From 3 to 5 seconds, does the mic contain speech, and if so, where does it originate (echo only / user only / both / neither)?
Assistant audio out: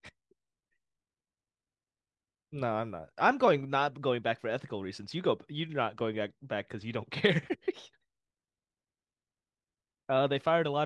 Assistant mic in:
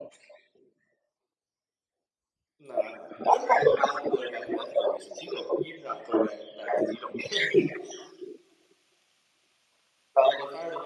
echo only